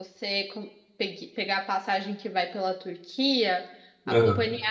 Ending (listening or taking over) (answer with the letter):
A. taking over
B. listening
B